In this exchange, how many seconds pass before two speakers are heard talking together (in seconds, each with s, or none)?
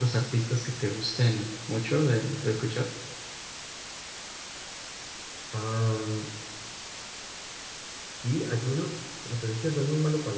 none